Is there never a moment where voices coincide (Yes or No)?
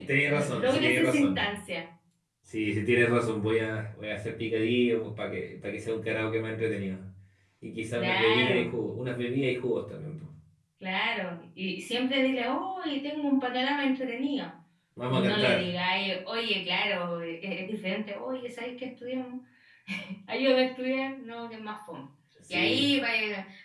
No